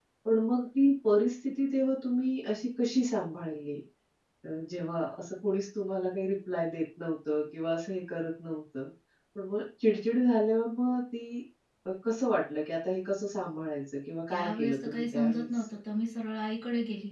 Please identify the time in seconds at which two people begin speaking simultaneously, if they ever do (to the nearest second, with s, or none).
14 s